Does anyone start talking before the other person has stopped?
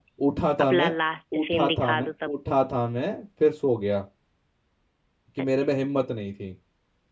Yes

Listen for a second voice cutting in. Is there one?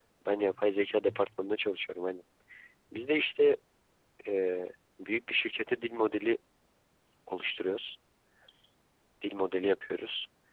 No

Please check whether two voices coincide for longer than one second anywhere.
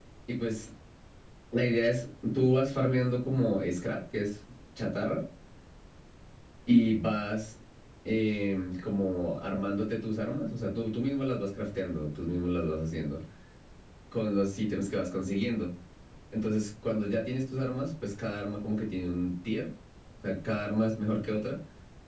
No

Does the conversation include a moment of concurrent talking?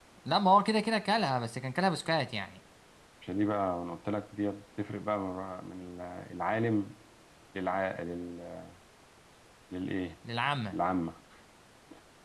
No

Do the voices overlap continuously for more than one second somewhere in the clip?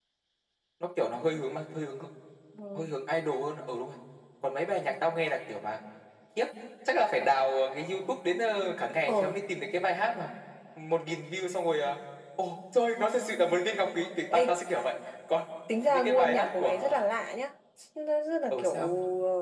Yes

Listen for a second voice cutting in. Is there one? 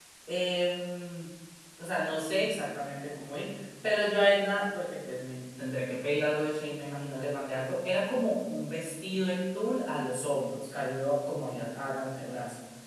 No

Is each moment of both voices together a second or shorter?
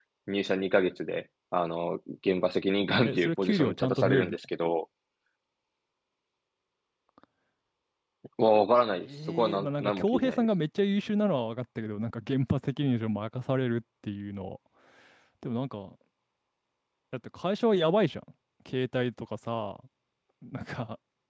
No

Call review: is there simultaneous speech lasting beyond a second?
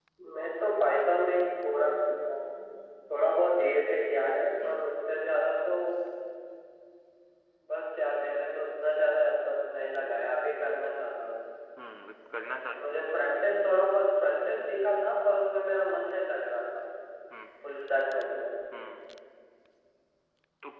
No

